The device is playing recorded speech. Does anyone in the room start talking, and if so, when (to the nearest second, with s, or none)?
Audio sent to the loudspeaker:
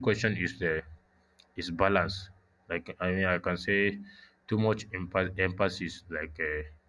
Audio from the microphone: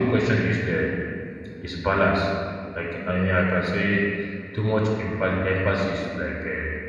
none